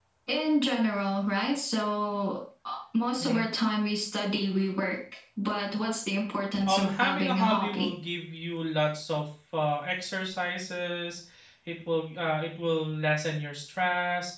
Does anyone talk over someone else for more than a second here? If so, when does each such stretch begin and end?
6.7-7.9

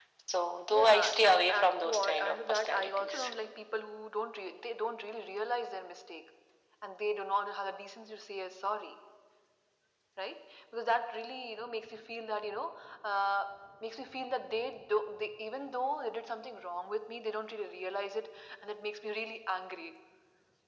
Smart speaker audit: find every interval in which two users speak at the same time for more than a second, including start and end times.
0.7-3.3

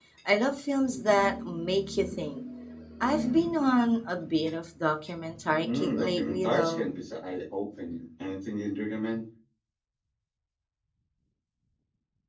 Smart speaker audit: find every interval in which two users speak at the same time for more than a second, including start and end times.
5.6-6.9

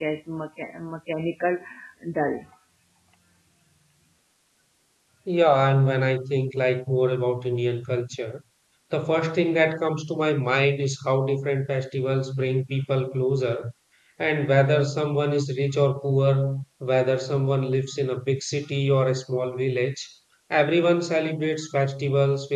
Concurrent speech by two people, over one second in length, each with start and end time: none

